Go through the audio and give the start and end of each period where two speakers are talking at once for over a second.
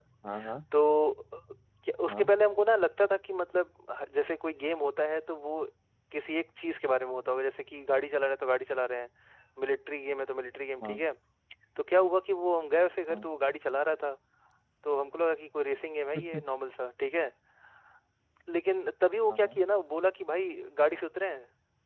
none

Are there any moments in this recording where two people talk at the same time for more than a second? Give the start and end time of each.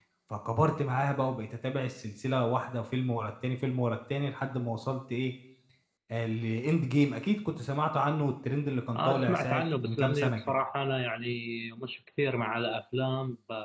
9.0-10.4

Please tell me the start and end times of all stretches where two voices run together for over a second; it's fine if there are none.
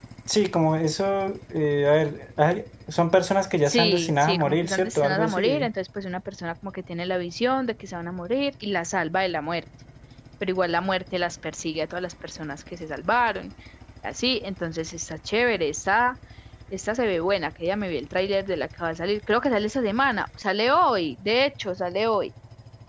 3.6-5.7

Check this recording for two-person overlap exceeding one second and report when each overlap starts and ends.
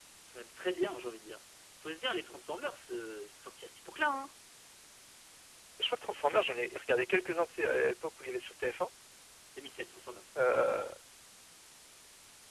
none

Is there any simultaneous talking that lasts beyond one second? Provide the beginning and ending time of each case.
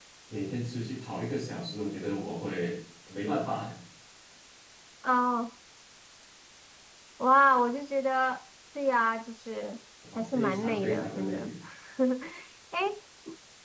10.2-11.5

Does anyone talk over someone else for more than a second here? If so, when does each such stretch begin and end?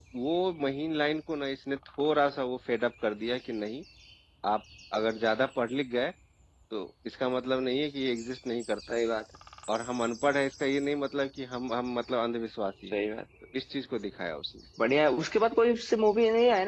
none

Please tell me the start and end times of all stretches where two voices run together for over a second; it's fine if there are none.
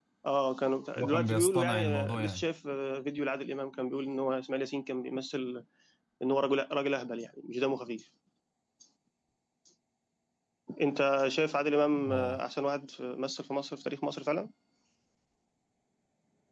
1.0-2.5

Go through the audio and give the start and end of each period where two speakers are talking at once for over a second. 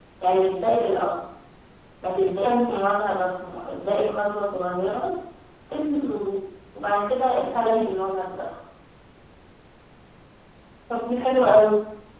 none

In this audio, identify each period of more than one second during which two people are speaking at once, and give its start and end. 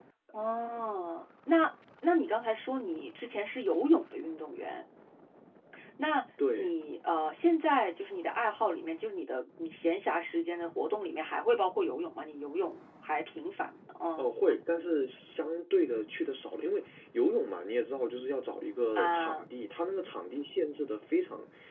none

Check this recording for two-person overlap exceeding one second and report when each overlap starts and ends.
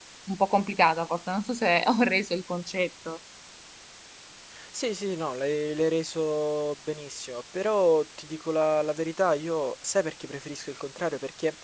none

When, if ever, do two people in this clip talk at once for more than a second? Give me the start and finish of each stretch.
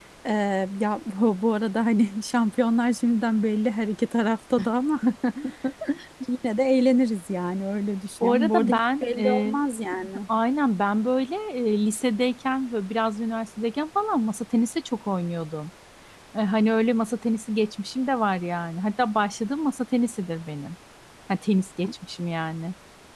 8.2-9.5

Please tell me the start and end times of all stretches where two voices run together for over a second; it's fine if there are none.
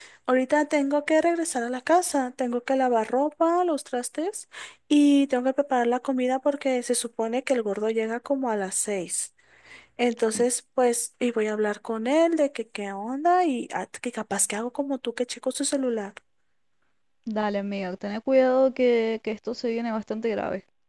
none

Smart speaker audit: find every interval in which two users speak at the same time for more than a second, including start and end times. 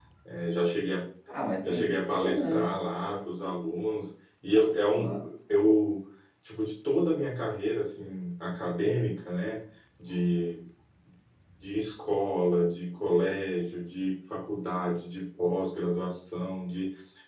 1.7-3.2

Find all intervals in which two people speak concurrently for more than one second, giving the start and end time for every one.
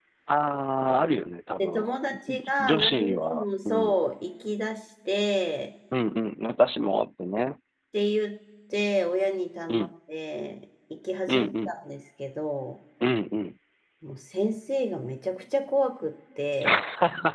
2.3-4.0

